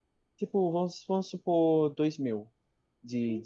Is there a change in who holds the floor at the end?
Yes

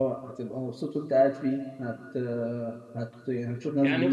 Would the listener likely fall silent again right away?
No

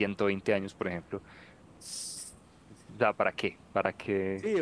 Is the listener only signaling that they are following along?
No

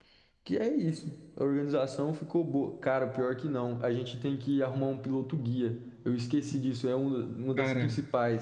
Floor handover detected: No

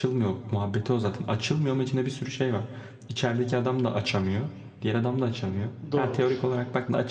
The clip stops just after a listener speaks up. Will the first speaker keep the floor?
Yes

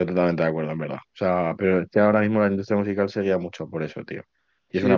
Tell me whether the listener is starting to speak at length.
Yes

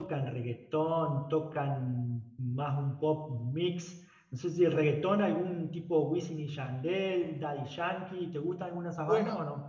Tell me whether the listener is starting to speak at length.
Yes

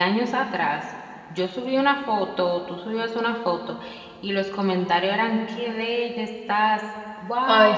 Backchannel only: Yes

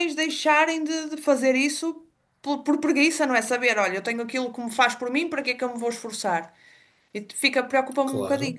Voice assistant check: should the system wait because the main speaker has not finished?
No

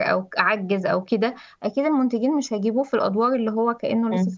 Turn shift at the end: Yes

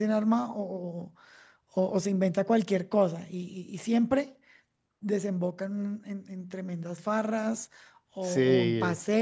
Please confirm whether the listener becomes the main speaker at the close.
No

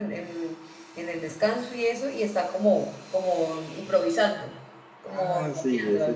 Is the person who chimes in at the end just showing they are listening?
No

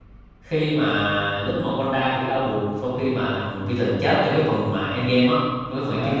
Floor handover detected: Yes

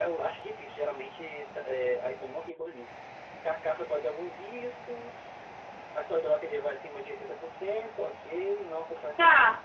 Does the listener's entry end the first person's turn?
Yes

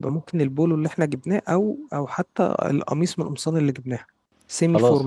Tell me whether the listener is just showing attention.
No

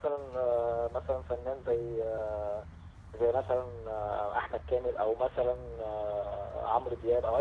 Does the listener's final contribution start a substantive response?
No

